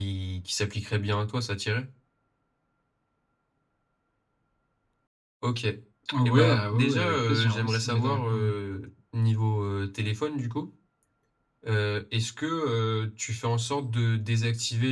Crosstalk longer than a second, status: present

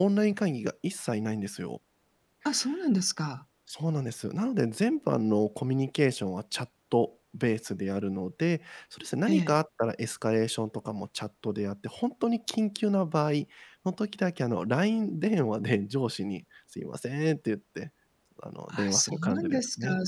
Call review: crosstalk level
present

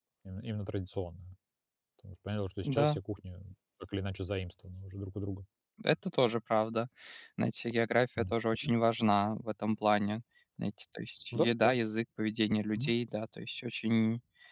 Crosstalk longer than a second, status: none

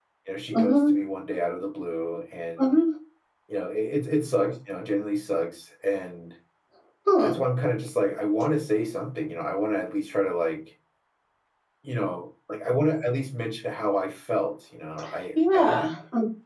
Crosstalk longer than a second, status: none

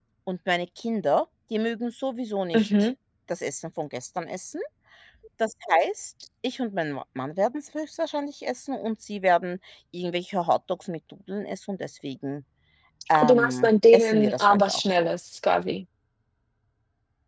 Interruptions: present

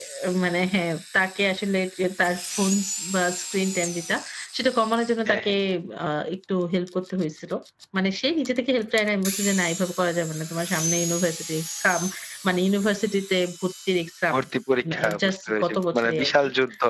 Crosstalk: present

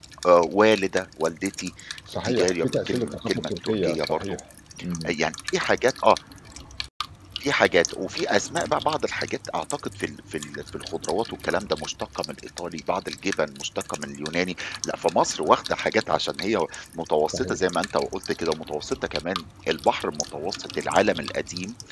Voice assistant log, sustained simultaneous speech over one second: present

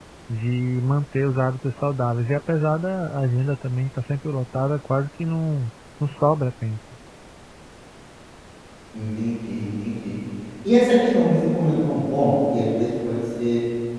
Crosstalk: none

